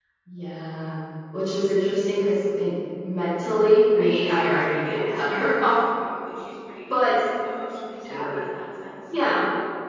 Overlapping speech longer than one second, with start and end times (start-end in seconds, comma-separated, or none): 3.9-5.8